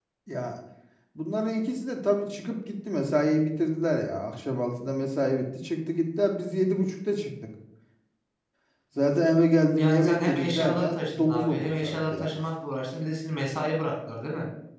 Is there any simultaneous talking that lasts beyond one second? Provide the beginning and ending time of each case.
9.8-12.4

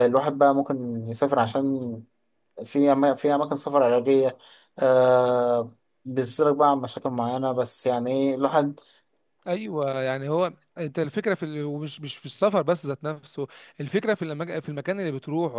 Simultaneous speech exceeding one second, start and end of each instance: none

